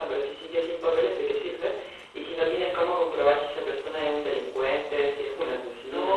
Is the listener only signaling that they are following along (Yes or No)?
No